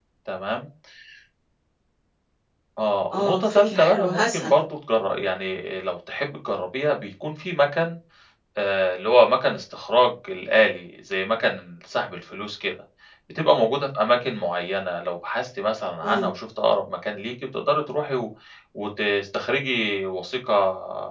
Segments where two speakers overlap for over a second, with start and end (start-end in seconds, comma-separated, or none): 3.1-4.5